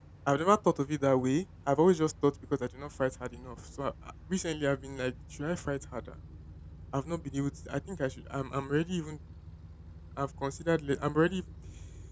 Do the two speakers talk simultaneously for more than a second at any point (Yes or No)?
No